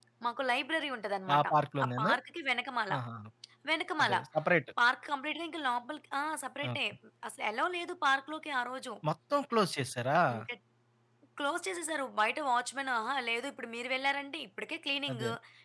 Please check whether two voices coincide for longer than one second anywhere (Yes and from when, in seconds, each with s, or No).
No